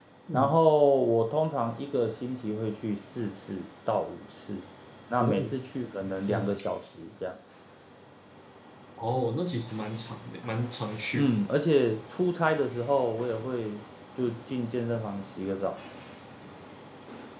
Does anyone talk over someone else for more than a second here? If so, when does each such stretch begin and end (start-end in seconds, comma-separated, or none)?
none